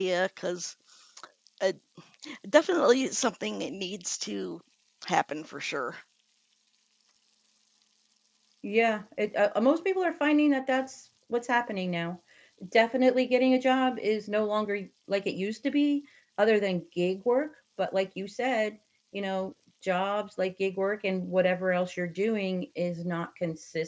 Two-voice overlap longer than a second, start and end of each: none

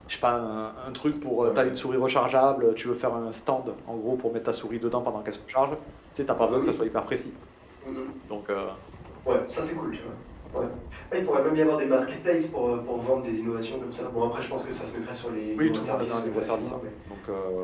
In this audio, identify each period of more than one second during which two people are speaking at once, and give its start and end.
15.6-16.8

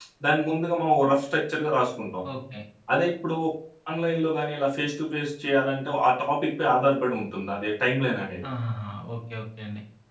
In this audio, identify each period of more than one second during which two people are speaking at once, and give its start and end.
none

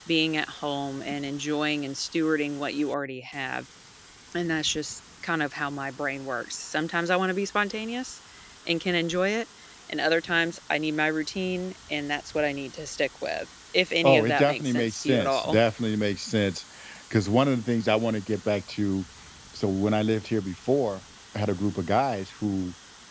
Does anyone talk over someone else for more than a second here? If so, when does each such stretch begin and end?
14.0-15.6

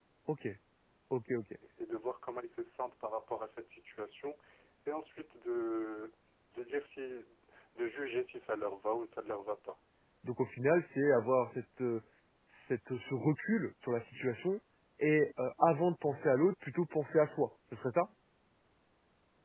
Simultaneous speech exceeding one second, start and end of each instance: none

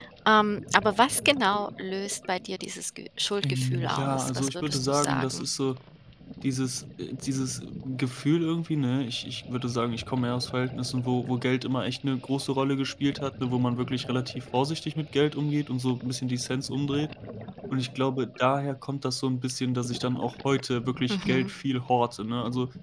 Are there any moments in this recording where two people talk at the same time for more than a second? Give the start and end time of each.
3.4-5.5

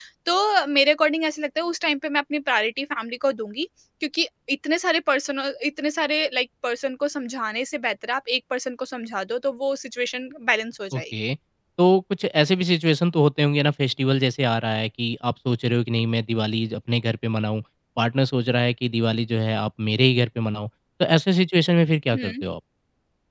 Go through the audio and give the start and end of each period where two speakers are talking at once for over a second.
none

